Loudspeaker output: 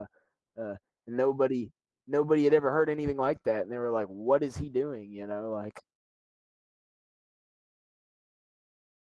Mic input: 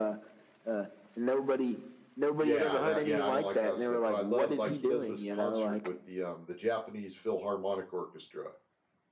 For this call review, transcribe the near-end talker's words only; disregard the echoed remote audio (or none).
Yeah, that yeah, I don't like that stuff, but I love like, he does this concert with the, um, the Japanese Philharmonic Orchestra